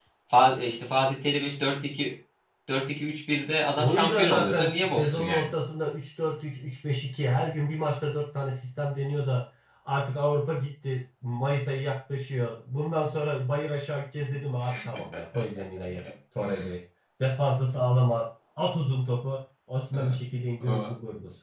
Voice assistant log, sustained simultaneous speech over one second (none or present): present